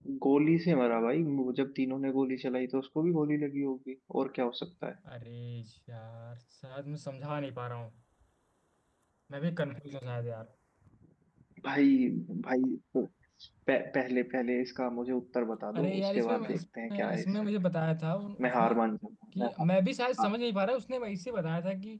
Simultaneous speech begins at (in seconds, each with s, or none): 15.8 s